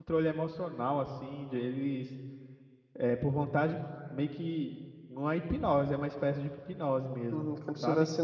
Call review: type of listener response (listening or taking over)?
taking over